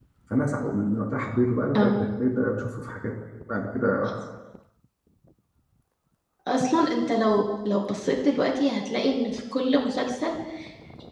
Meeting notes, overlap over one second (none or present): none